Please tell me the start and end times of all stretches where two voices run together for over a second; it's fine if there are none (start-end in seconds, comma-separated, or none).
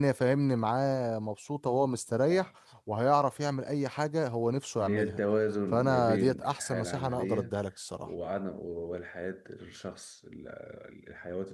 5.7-7.5